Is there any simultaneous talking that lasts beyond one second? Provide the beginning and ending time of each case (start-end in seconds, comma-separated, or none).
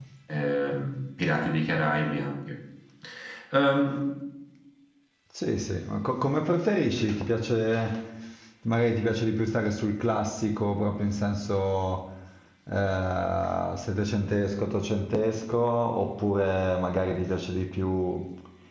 none